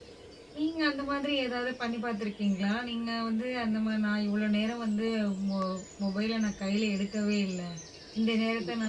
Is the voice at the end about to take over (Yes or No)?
No